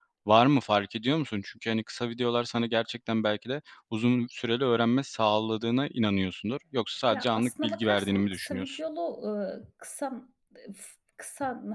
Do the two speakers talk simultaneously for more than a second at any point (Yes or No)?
Yes